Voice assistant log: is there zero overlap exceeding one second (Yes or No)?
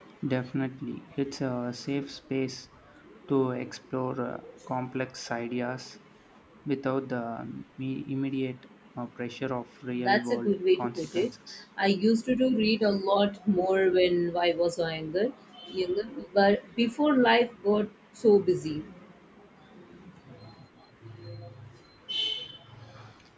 No